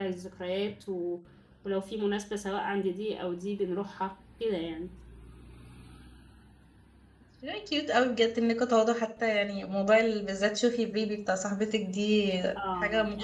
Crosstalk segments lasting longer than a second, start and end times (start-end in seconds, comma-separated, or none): none